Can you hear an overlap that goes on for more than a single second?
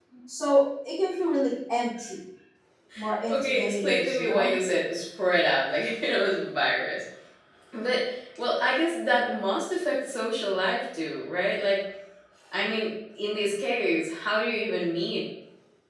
Yes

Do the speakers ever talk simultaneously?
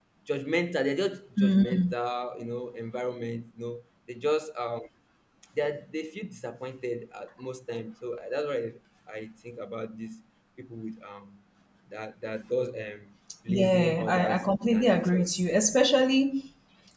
Yes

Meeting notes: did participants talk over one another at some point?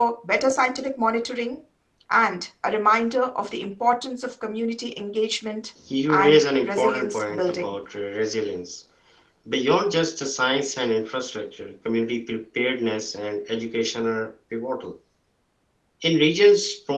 Yes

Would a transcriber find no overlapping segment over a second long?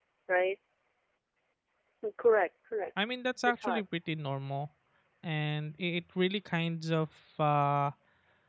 Yes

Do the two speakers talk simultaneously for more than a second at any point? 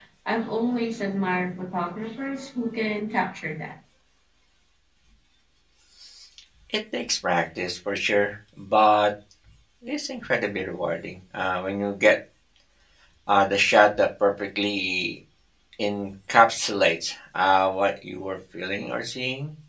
No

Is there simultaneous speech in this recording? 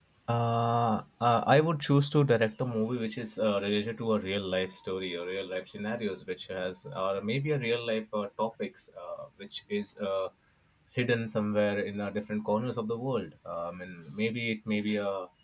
No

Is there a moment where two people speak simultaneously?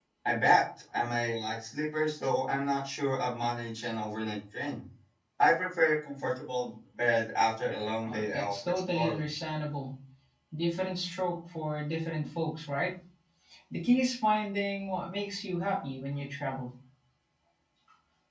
Yes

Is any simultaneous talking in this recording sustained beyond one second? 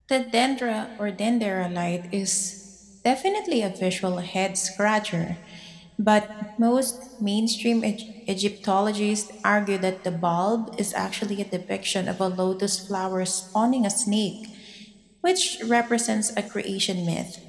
No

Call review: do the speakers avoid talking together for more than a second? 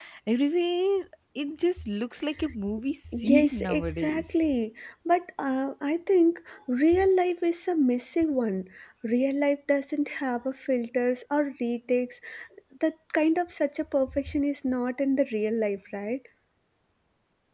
No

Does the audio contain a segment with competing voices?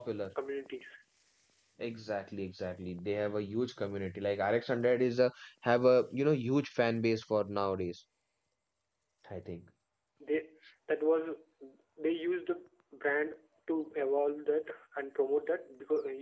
No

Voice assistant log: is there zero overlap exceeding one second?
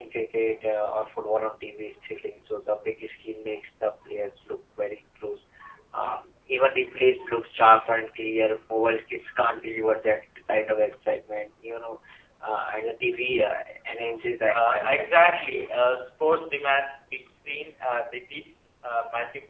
No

